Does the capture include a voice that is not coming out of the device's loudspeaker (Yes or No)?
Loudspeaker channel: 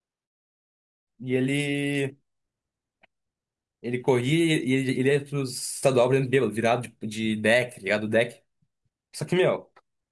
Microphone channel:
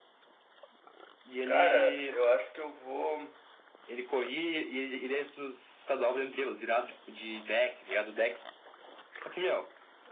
Yes